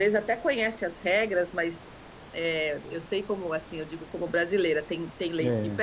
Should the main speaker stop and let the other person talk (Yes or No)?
No